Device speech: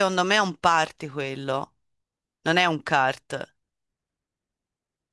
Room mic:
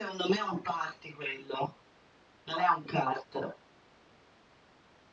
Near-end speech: none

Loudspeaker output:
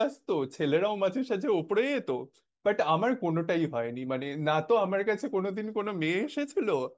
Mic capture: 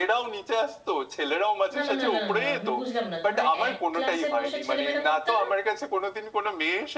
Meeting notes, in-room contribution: present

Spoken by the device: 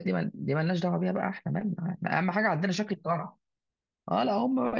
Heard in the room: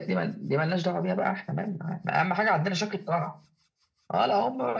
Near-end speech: none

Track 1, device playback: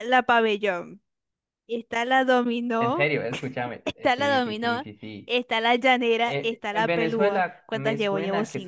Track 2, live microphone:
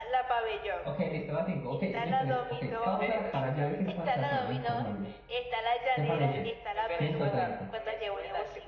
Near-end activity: present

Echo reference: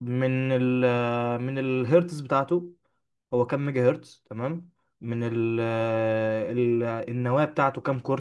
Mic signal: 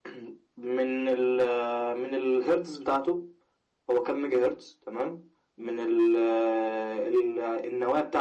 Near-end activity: none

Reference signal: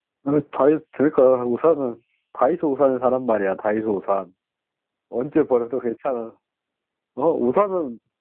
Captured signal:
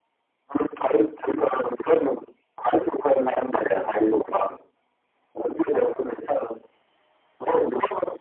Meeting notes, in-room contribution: none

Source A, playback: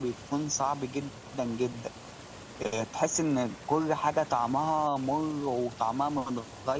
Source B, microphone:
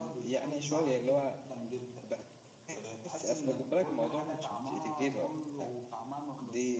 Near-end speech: present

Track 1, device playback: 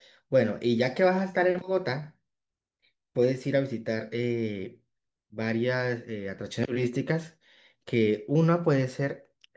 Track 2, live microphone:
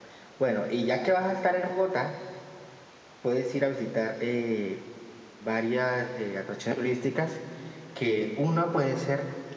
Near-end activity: none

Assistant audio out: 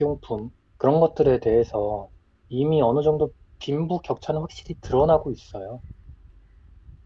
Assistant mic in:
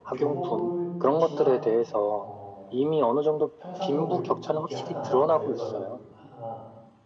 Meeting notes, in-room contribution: present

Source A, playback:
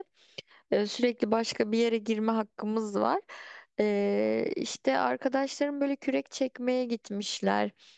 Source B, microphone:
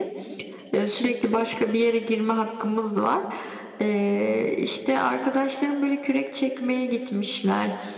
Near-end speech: none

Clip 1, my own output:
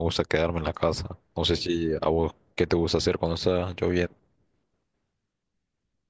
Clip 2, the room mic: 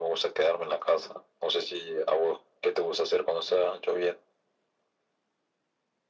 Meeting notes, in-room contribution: none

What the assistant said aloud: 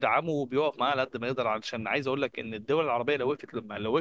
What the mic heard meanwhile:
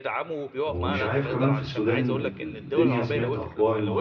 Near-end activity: present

